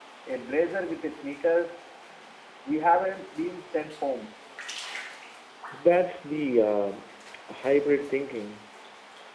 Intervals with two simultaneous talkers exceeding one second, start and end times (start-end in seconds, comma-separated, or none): none